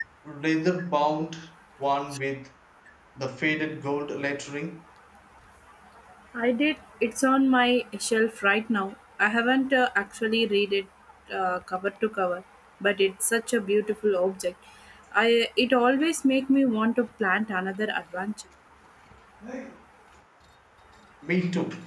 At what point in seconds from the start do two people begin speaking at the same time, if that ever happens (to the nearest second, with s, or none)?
none